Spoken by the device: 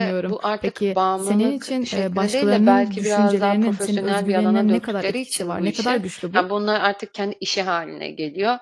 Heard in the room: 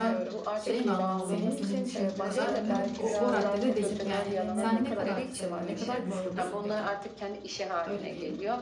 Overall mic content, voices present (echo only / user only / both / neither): both